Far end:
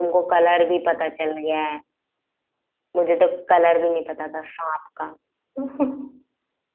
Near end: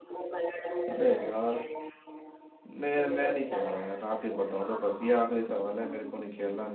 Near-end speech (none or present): present